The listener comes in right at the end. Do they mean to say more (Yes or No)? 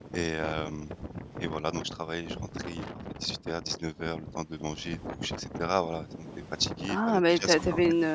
Yes